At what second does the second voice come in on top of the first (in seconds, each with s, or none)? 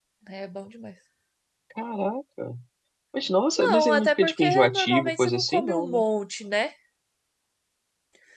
3.6 s